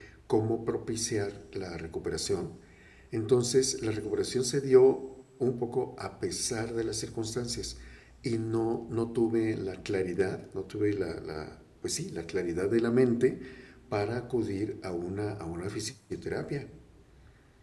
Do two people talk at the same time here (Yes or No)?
No